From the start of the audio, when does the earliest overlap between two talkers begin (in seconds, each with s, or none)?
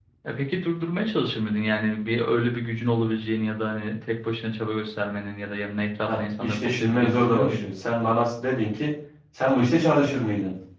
6.0 s